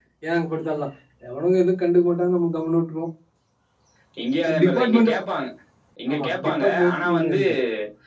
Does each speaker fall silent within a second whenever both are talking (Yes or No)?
No